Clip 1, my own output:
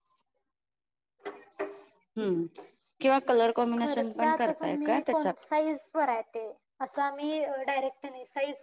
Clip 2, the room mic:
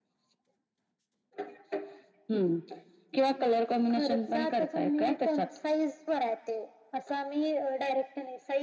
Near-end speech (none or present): none